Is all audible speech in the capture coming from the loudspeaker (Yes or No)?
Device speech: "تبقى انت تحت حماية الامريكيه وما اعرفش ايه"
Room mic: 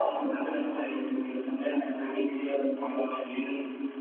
Yes